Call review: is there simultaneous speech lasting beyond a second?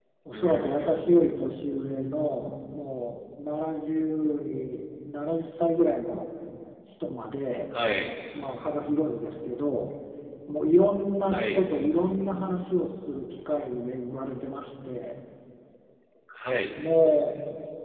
No

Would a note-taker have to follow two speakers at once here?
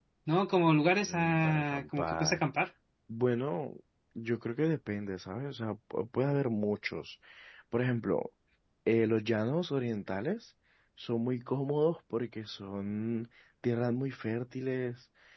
Yes, from 1.0 s

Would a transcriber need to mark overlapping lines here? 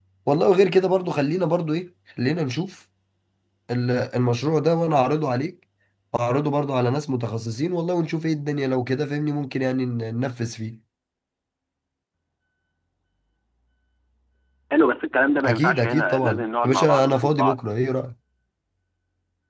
Yes, from 15.4 s

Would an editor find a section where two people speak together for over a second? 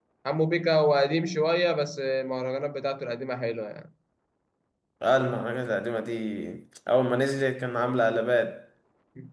No

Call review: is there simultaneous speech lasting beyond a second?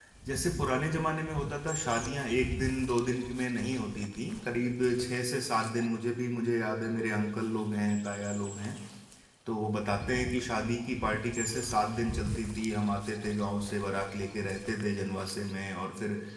No

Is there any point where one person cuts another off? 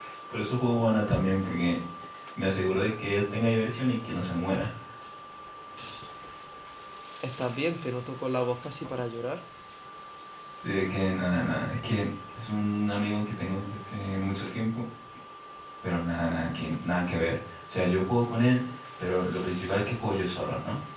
No

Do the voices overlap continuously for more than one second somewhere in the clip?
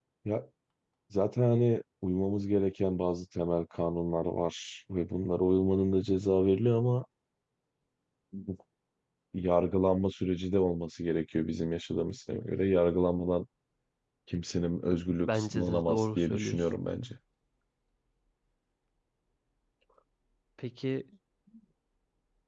Yes, from 15.3 s

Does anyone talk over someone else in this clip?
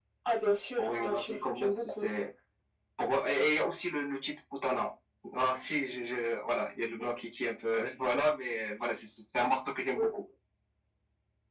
Yes, from 0.8 s

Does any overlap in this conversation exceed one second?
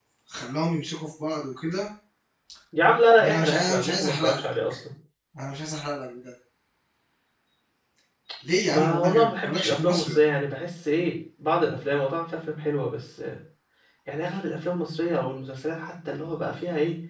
Yes, from 3.2 s

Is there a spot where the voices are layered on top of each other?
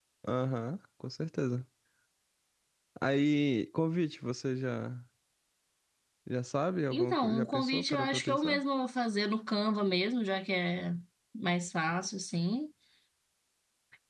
Yes, from 6.9 s

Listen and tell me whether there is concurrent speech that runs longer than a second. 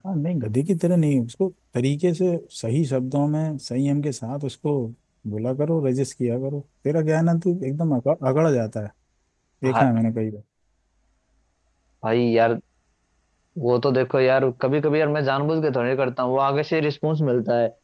No

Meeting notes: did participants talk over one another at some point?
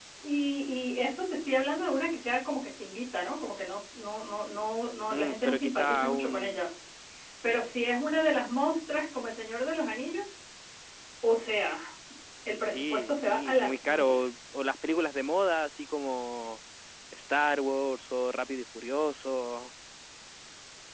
Yes, from 5.1 s

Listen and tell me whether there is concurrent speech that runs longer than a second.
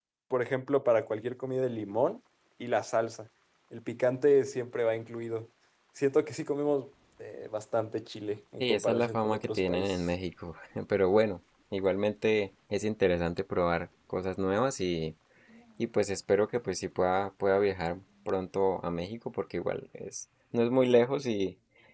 Yes, from 8.6 s

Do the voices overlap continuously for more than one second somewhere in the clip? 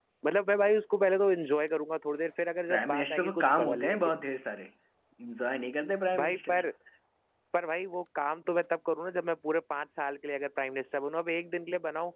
Yes, from 2.7 s

